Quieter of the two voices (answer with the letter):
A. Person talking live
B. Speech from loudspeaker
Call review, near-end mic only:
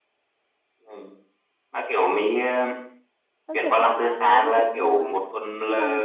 A